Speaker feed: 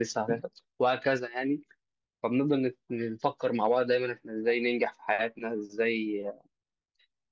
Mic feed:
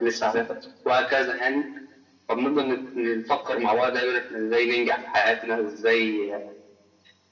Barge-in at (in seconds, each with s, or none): none